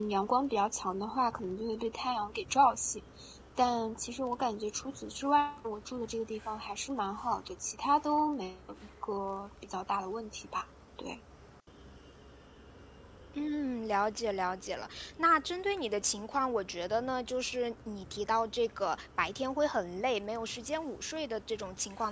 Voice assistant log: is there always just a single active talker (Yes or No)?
Yes